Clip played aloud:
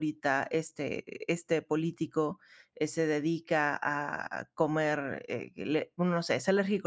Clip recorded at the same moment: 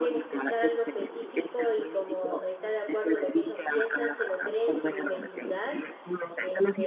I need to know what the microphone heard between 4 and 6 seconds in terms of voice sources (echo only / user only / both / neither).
both